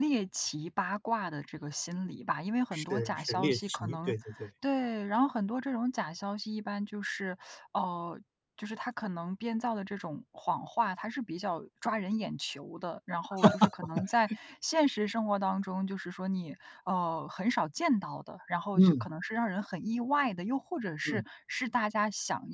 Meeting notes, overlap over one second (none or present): present